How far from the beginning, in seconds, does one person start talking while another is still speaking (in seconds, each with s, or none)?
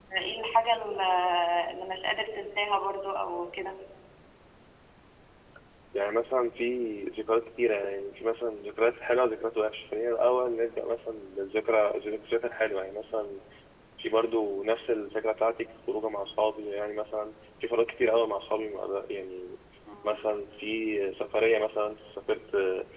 none